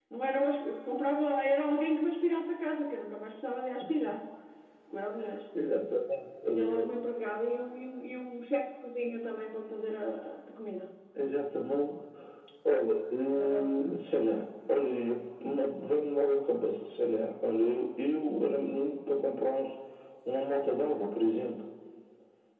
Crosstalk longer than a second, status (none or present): none